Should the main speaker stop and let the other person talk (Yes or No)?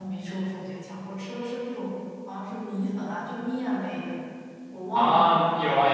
Yes